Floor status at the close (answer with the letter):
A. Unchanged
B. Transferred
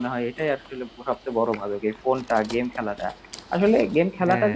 A